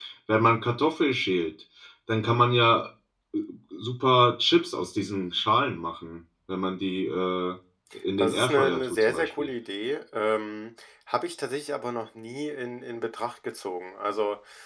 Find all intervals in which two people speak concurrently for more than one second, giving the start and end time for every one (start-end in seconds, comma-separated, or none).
8.2-9.5